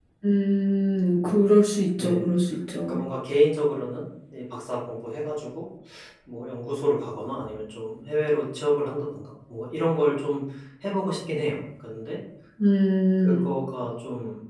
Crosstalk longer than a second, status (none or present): none